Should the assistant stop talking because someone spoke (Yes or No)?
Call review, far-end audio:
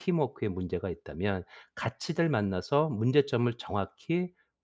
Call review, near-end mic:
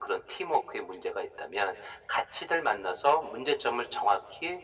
No